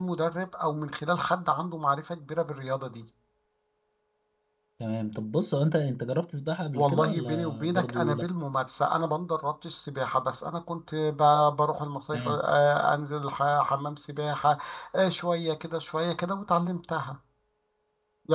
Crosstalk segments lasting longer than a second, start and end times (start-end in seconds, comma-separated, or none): 6.7-8.2